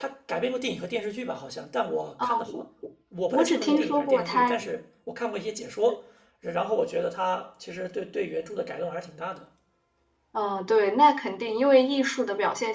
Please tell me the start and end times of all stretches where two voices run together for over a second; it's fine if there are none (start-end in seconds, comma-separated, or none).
3.3-4.6